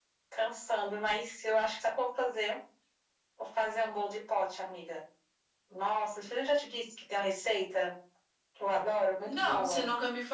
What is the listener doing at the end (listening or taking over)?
taking over